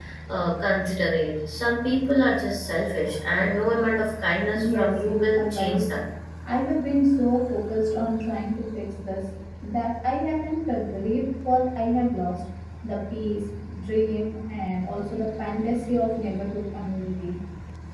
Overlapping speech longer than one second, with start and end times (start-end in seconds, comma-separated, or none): 4.5-5.9